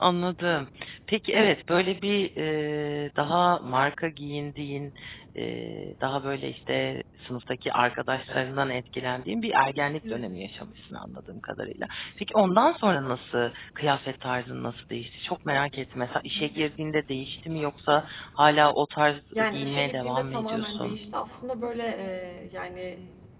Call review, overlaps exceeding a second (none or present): present